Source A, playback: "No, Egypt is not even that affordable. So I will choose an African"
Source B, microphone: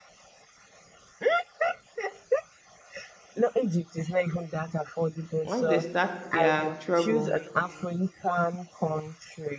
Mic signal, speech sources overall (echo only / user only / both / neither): both